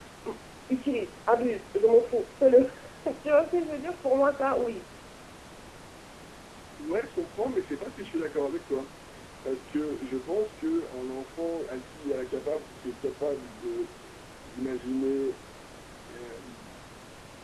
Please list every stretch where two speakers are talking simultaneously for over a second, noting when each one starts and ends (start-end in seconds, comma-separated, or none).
none